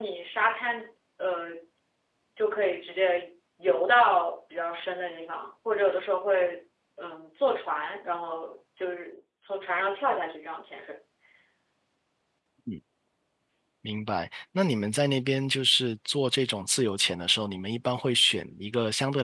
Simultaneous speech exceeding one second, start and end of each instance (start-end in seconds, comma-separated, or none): none